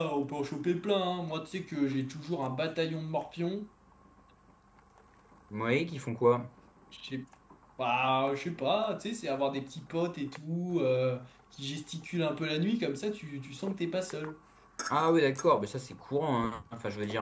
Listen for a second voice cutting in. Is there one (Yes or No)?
No